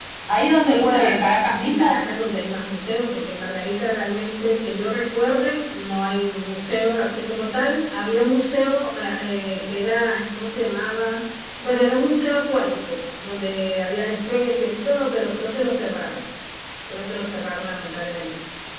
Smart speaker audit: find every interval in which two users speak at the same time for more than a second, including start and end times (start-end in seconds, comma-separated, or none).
0.7-2.0